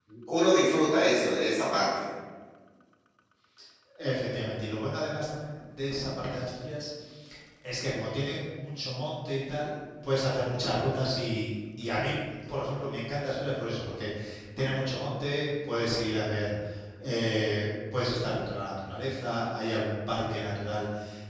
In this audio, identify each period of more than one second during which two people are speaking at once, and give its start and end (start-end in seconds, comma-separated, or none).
none